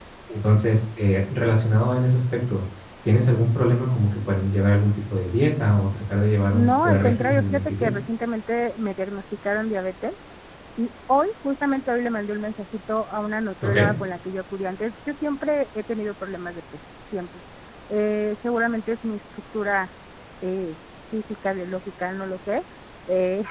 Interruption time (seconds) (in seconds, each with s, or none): 6.5 s